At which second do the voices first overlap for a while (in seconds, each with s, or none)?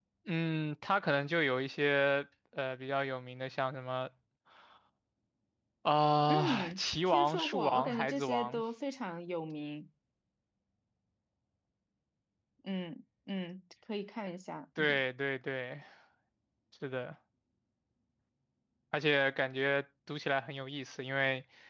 6.3 s